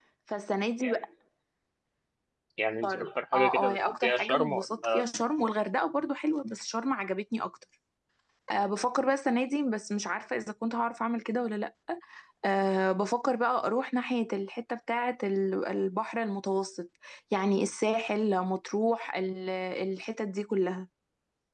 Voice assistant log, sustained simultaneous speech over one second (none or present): present